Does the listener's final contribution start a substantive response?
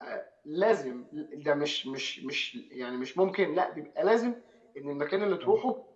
No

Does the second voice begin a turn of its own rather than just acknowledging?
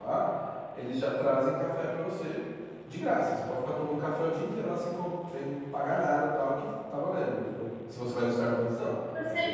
Yes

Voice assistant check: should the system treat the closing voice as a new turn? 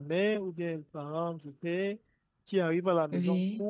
No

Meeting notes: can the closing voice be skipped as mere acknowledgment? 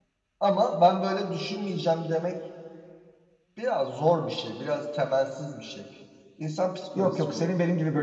No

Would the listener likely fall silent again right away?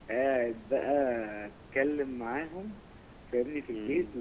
Yes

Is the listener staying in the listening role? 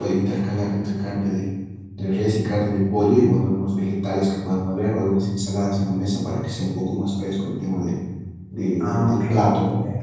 No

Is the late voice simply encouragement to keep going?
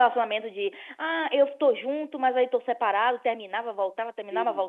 No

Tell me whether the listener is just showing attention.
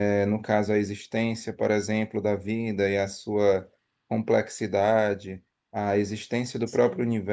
Yes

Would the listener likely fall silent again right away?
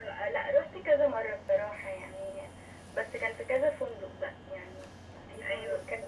Yes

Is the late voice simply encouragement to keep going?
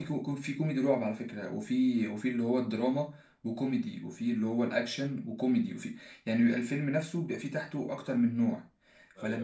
Yes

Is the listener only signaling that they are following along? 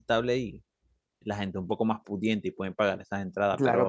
No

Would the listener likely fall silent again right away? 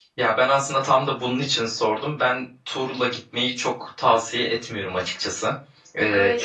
Yes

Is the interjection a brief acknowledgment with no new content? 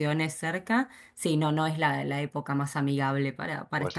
No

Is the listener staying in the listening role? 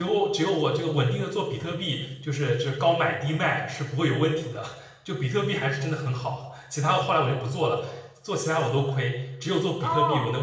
No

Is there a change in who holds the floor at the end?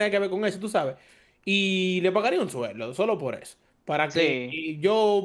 No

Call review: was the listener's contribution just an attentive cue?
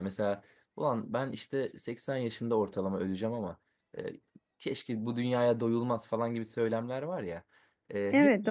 Yes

